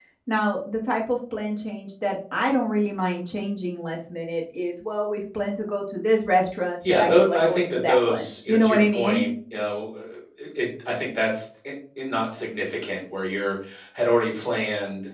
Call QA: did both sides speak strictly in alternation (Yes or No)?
No